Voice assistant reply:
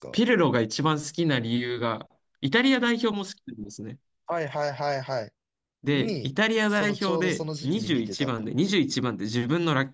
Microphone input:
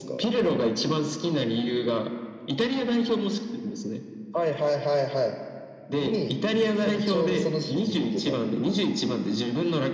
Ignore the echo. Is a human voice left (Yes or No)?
No